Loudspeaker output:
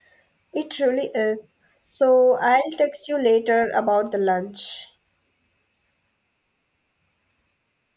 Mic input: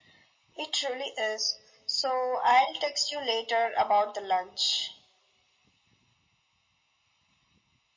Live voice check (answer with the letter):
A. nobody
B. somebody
A